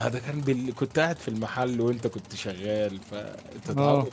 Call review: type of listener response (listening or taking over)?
listening